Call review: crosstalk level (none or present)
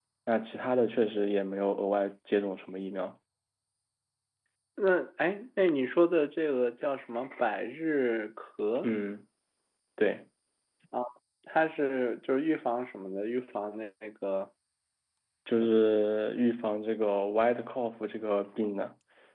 none